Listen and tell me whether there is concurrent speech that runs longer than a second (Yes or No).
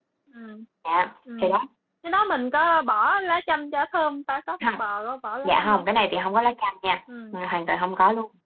No